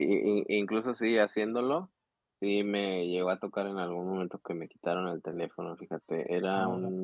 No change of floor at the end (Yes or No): Yes